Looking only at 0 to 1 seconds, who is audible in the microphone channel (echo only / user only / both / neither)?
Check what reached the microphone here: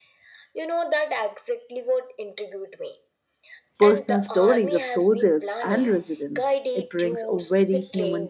echo only